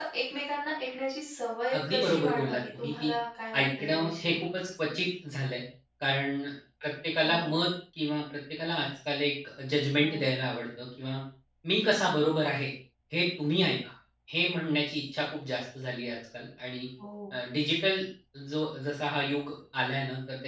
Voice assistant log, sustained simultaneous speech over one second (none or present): present